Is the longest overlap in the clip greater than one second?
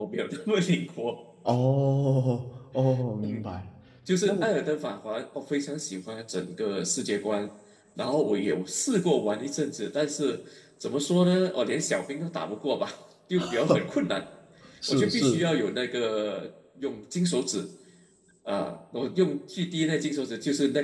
No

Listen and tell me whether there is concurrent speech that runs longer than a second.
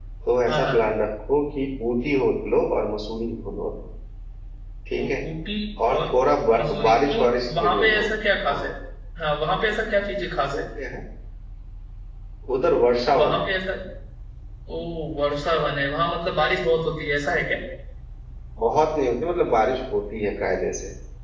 Yes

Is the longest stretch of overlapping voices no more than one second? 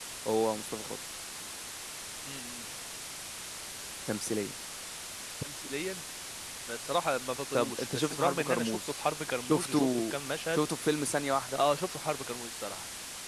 No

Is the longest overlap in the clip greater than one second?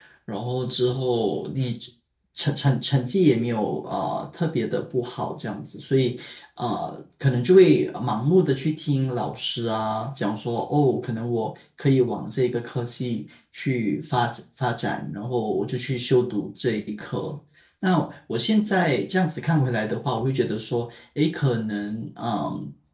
No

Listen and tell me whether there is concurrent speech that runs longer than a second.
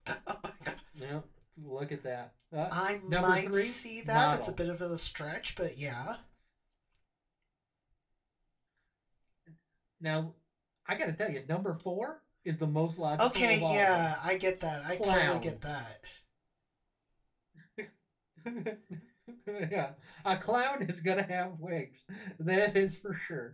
Yes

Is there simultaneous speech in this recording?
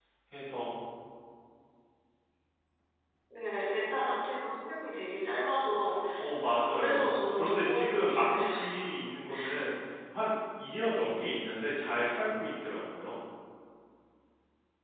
Yes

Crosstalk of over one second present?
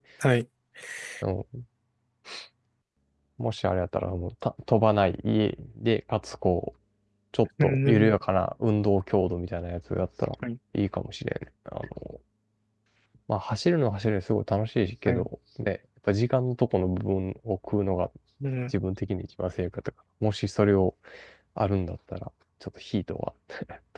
No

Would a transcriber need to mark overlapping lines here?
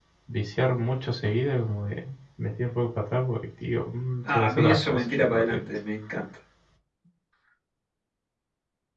Yes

